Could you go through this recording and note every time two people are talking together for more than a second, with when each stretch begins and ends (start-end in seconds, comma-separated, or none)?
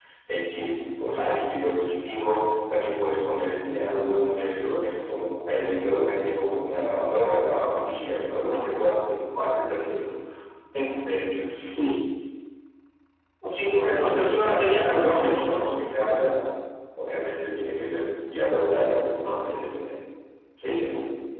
14.1-15.6